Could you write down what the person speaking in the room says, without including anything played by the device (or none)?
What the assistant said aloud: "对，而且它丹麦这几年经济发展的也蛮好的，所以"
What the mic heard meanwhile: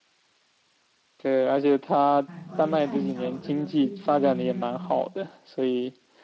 哎，我得看一下我的飞机能不能，